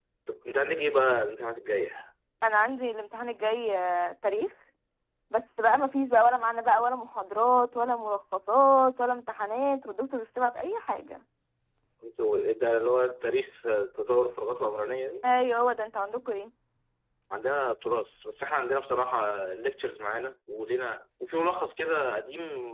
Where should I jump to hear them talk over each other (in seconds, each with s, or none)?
none